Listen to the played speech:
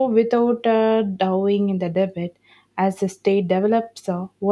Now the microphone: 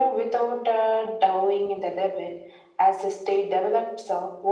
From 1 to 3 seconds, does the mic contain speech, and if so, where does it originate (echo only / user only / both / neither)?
echo only